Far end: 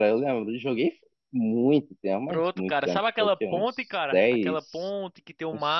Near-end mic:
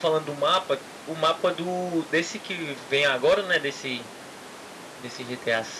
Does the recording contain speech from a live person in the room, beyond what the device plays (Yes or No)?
Yes